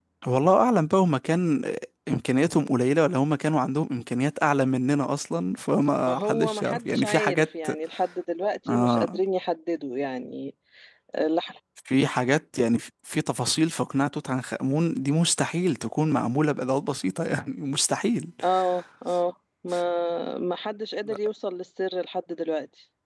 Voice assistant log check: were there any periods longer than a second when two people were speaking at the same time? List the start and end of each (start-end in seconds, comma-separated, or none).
6.1-7.7